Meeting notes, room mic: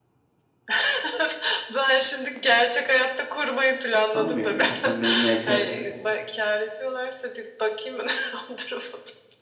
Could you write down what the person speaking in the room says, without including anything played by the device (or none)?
Sanmıyorum ama sen beni yine ekersin.